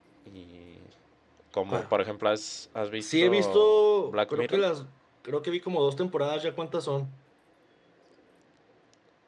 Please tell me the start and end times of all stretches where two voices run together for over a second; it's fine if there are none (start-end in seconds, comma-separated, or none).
3.0-4.6